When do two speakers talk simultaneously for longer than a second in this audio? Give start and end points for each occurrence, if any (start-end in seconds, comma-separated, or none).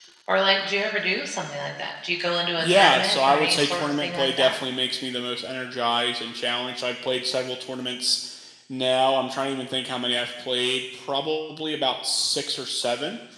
2.6-4.5